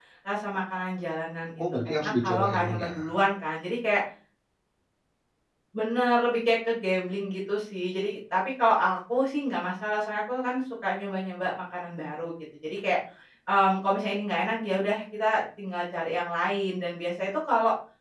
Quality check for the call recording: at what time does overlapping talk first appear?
1.8 s

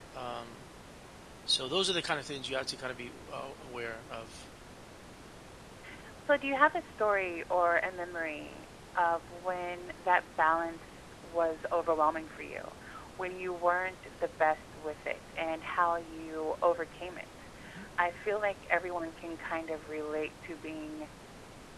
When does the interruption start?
none

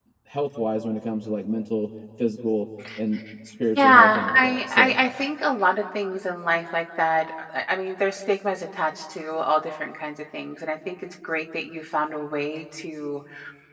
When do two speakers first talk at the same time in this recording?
3.8 s

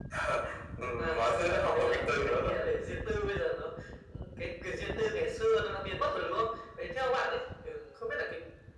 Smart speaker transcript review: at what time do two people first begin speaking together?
1.0 s

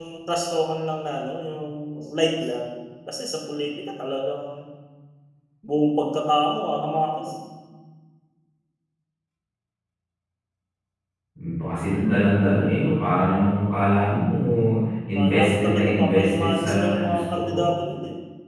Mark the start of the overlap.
15.2 s

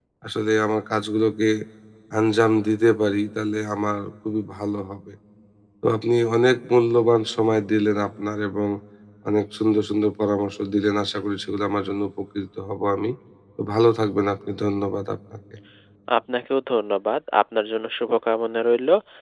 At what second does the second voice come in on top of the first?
none

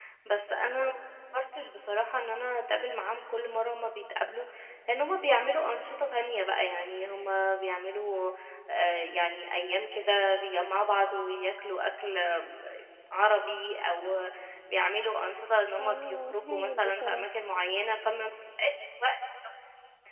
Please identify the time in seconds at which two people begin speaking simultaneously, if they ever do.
15.8 s

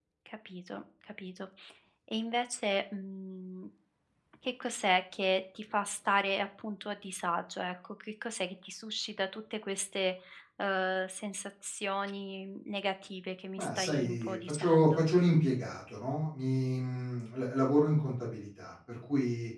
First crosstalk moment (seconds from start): 13.6 s

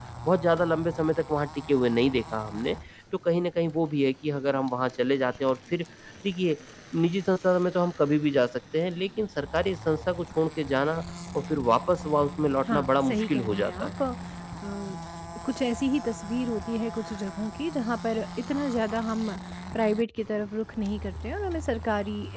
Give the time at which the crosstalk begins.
12.6 s

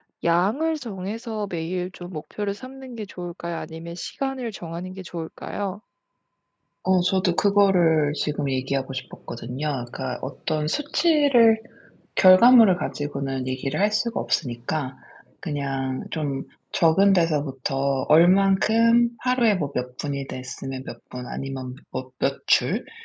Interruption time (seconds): none

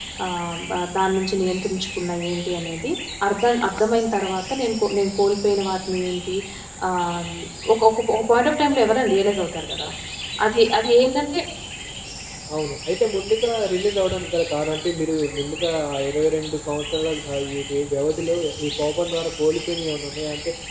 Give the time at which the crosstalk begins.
none

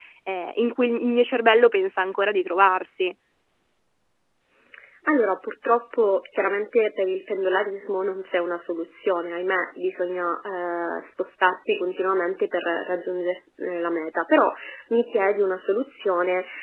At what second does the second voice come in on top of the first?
none

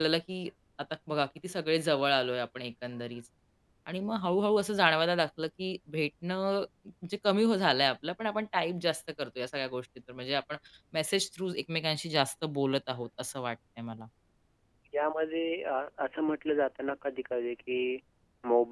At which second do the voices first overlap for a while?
none

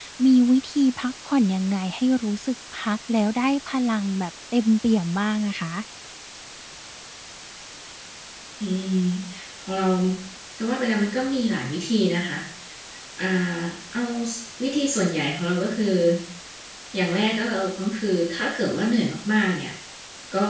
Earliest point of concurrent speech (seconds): none

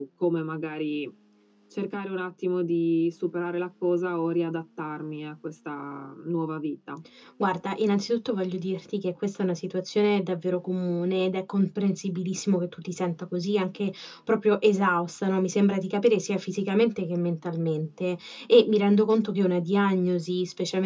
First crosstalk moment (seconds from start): none

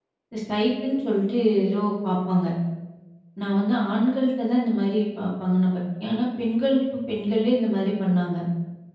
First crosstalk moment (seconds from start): none

